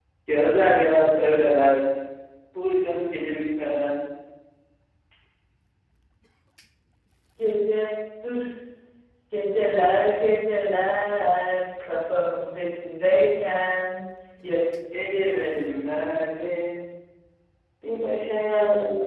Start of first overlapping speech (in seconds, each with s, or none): none